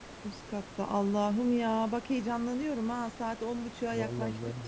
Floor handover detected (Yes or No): Yes